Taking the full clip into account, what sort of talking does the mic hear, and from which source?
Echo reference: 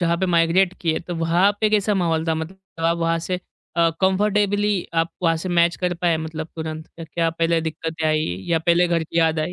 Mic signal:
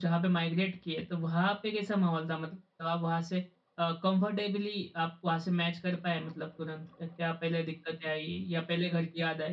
echo only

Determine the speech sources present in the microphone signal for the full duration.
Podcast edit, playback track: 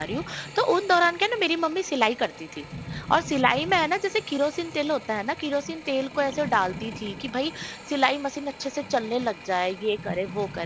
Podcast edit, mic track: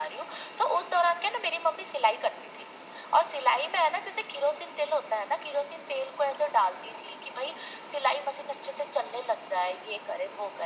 echo only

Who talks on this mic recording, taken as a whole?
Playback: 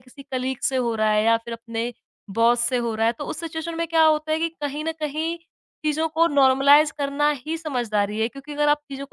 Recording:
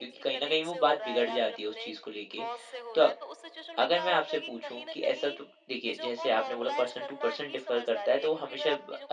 both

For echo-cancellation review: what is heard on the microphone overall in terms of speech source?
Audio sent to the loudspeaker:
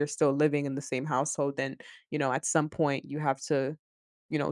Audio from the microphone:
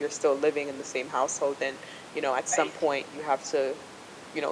both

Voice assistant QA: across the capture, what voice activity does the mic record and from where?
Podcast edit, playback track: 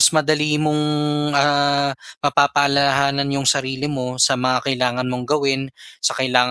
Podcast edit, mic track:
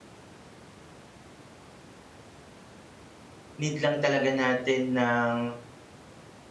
user only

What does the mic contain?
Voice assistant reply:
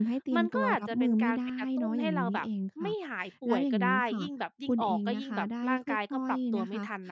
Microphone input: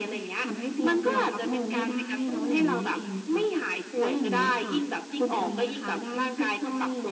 echo only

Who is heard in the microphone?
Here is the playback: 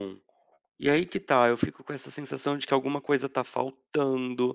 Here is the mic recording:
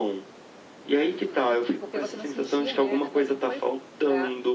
both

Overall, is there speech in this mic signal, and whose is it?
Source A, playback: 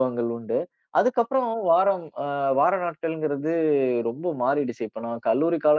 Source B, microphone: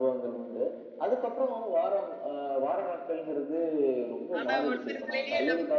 both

